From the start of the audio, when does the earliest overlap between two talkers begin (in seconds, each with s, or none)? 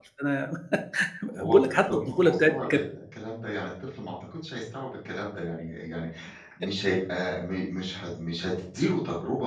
1.4 s